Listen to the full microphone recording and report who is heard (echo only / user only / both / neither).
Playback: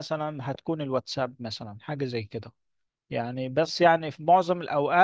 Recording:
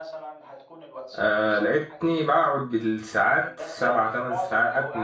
both